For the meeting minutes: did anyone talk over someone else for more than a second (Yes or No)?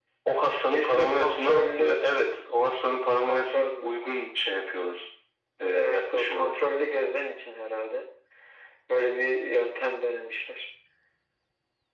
Yes